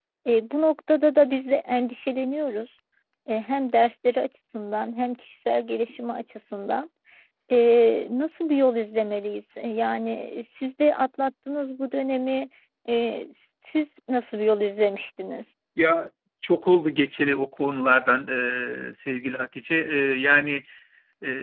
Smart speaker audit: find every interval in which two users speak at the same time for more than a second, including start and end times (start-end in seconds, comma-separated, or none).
none